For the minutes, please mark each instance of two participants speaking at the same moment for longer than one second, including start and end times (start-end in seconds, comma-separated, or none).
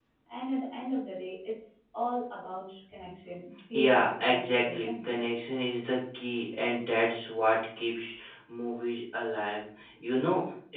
3.7-5.1